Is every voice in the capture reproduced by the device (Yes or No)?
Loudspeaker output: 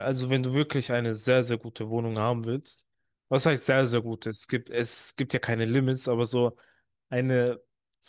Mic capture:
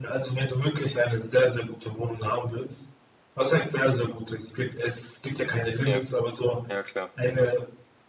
No